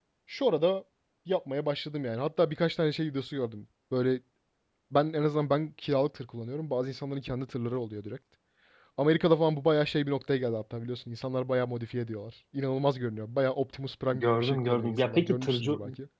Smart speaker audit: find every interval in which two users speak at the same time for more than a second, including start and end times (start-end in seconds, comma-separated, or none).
14.1-15.7